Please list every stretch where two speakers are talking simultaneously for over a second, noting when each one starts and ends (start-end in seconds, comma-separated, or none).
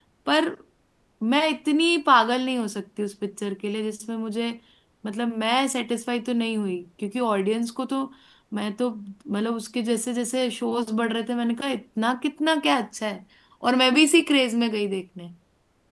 none